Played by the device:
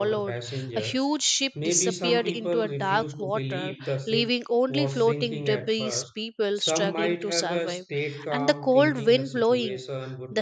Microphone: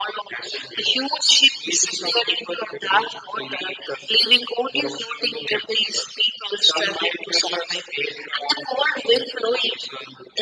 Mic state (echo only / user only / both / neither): echo only